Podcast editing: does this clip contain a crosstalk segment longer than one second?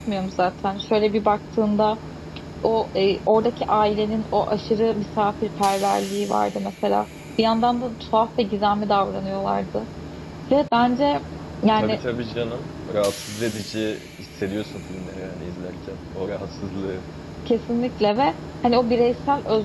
No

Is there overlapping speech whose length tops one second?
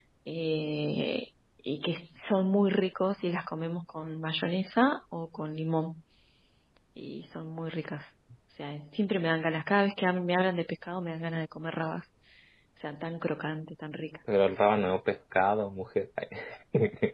No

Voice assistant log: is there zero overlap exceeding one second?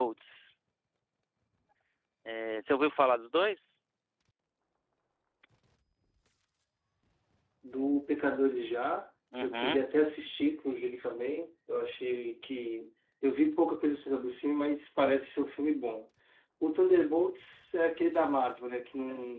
Yes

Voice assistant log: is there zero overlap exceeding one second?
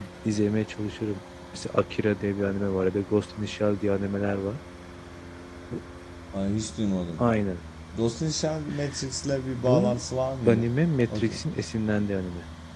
Yes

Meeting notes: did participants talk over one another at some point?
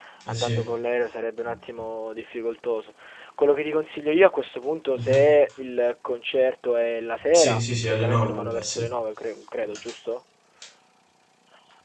Yes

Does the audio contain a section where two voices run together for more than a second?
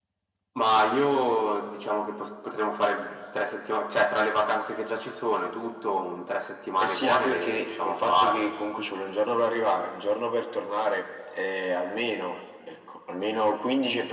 Yes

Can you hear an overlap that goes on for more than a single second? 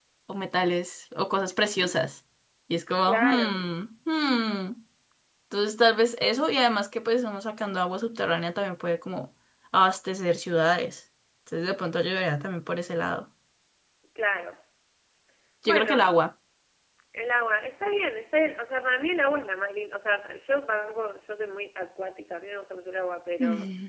No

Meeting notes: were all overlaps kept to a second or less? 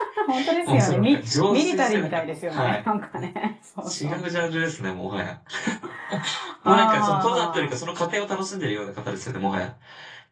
No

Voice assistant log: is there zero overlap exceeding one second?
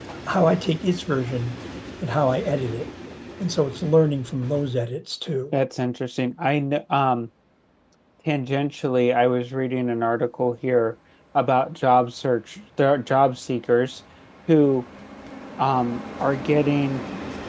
Yes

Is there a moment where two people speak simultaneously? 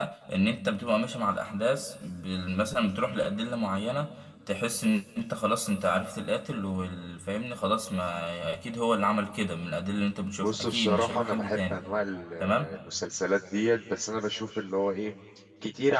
Yes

